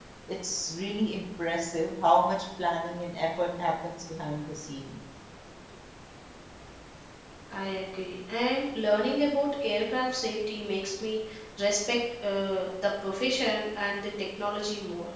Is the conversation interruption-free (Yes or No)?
Yes